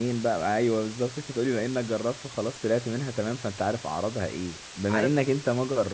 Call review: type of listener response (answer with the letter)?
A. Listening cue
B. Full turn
A